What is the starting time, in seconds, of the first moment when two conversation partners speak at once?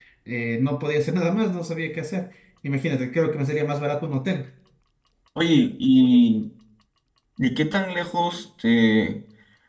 none

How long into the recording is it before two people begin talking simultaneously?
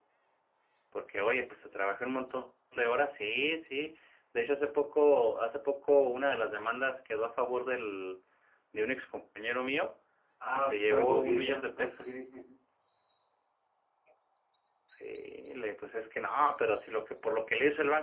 10.6 s

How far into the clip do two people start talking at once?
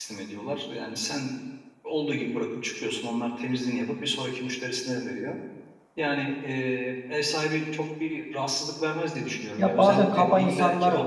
9.6 s

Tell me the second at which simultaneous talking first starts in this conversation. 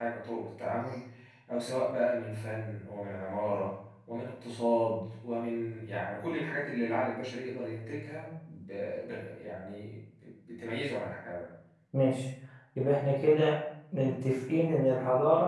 none

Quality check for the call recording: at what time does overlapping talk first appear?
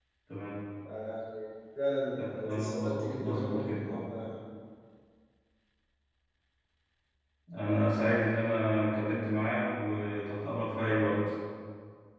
2.4 s

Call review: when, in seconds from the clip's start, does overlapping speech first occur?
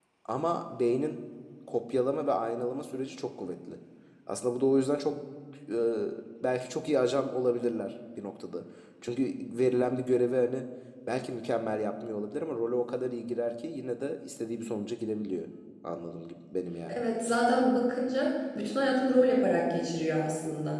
none

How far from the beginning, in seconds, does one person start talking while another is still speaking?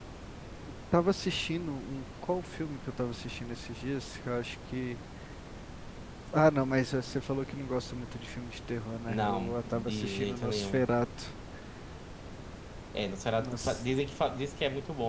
9.1 s

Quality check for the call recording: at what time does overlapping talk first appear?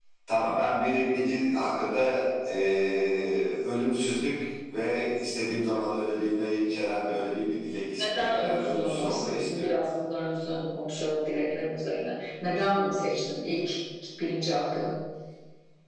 8.0 s

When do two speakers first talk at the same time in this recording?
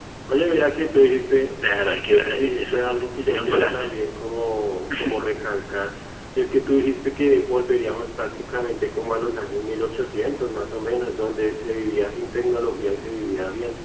2.4 s

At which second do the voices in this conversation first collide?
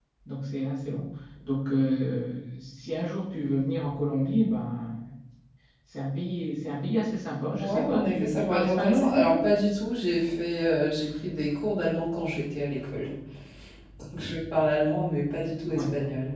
7.6 s

